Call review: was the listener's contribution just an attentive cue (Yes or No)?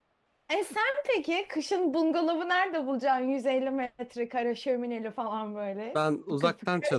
No